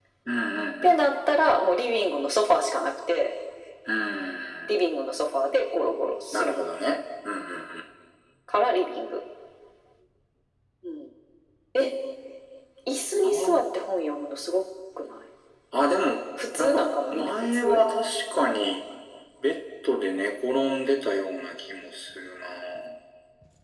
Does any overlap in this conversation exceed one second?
Yes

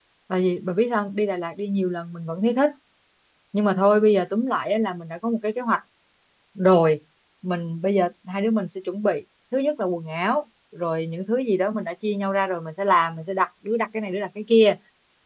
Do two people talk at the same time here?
No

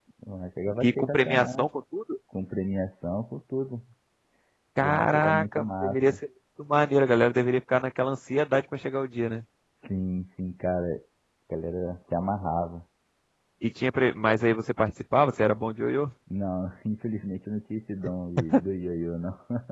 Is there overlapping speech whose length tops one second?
Yes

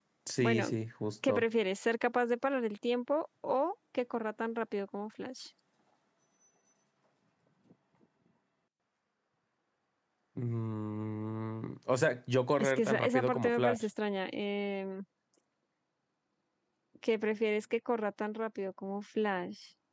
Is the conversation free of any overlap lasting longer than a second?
No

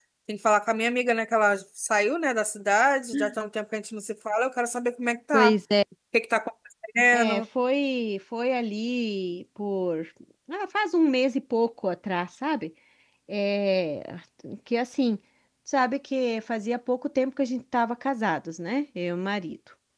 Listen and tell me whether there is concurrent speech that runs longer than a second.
No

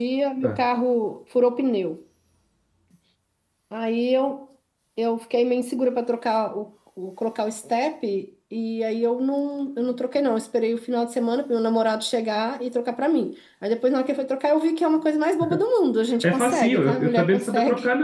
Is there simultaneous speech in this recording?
Yes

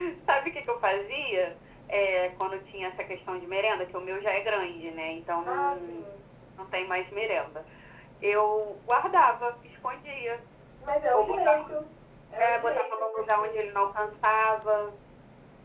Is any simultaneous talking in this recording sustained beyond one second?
Yes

